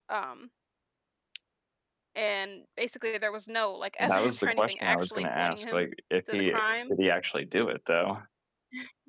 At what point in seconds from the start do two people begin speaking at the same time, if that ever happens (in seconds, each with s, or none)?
4.1 s